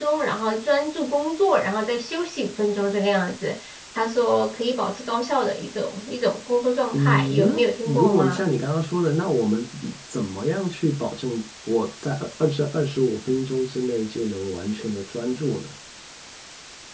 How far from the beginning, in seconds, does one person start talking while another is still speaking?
6.9 s

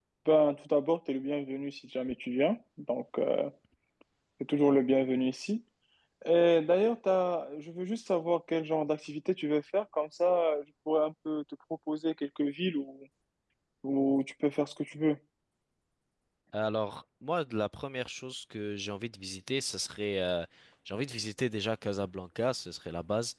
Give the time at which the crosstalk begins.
none

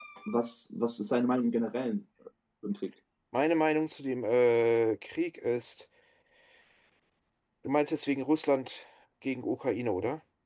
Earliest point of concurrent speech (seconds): none

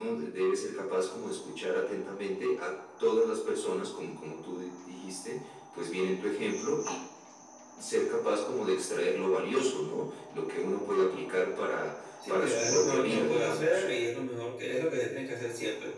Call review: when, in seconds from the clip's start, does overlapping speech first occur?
12.2 s

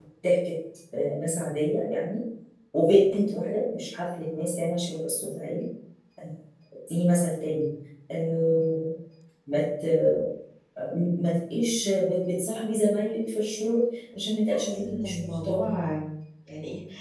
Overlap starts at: 14.5 s

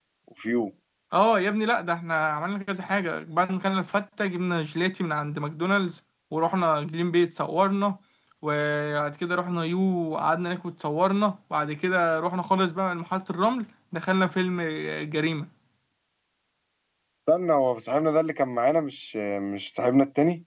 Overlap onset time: none

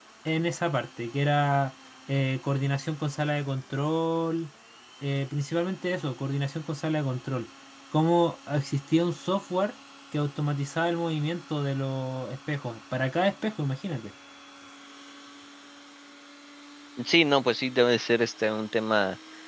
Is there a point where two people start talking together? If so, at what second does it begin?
none

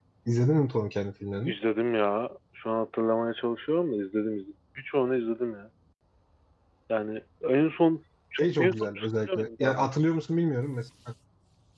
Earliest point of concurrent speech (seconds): 8.6 s

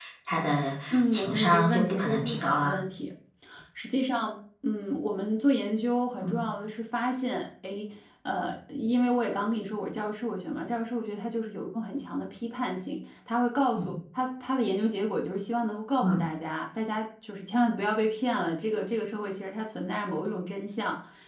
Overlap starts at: 0.9 s

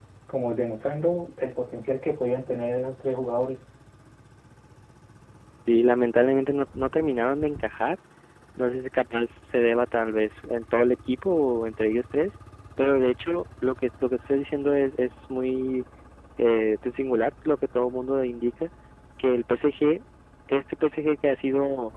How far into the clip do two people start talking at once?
none

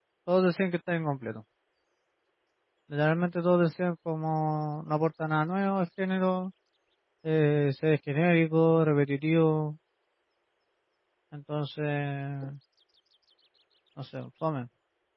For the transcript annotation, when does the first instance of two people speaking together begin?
none

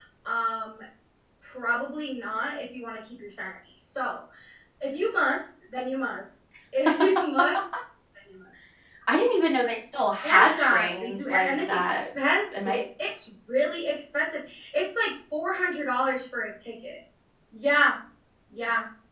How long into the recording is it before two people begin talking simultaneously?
10.2 s

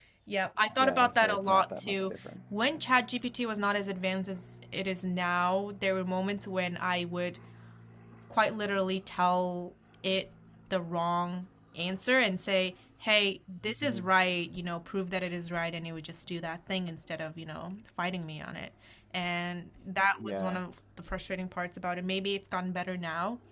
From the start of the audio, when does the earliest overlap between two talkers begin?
0.8 s

